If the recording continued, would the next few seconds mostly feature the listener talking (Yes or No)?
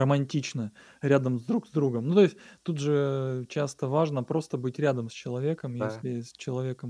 No